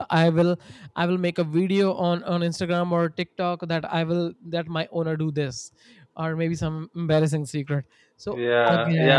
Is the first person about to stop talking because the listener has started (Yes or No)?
Yes